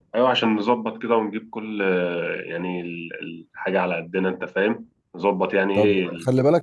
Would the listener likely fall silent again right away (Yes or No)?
No